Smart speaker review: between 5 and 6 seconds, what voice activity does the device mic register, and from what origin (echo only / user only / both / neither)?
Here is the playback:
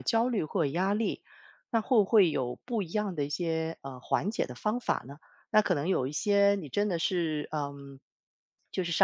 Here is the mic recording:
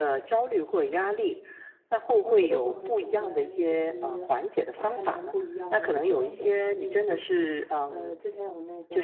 both